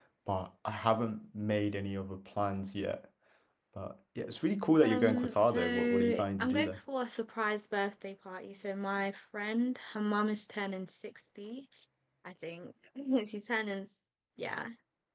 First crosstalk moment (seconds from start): 4.8 s

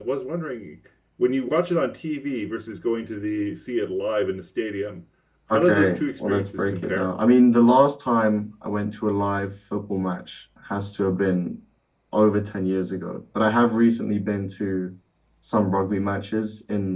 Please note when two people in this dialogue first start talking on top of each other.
5.5 s

